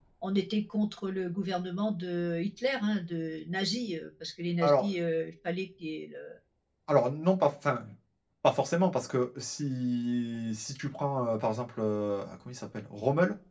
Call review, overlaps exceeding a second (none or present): none